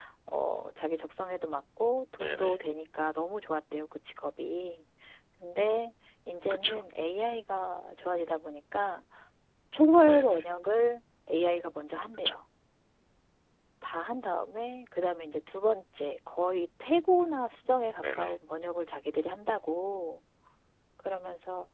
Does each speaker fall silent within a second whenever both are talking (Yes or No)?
Yes